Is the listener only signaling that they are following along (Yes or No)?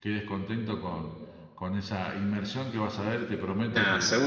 No